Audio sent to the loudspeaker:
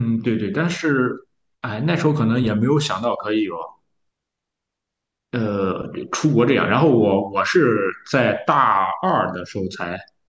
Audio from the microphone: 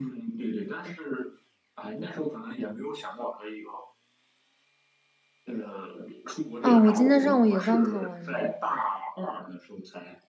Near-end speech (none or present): present